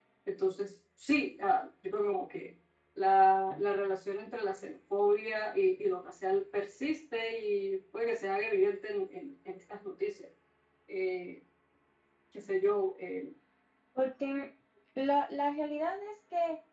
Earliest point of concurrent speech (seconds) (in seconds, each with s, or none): none